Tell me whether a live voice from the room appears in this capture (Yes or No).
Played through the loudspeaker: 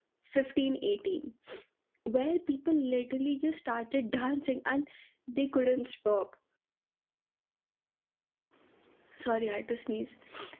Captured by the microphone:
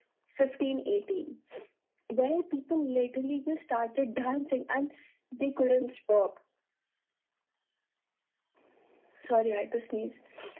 No